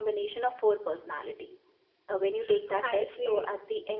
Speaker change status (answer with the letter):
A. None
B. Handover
A